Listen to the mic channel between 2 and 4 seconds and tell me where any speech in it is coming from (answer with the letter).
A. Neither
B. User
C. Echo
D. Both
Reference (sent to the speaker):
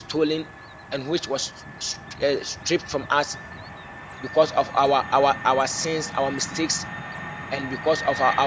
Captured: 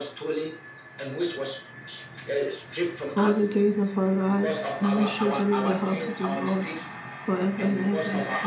D